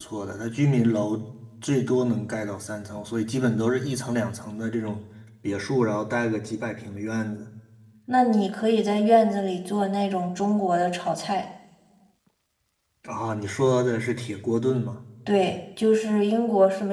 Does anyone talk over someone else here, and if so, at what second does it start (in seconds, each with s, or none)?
none